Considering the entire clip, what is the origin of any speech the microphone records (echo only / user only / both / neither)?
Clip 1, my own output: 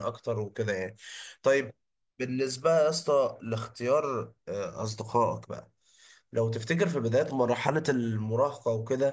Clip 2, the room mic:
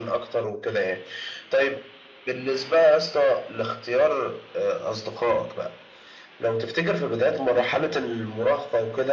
echo only